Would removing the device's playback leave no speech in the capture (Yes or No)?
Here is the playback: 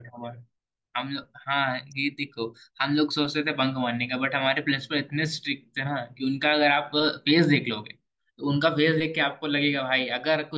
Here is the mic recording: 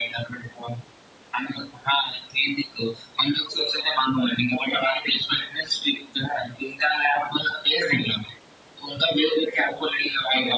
Yes